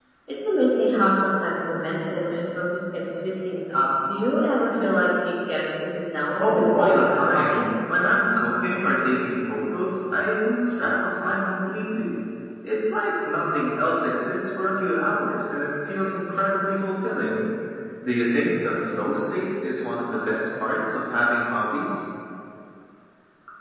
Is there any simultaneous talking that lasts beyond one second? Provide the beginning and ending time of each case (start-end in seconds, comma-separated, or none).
6.4-7.6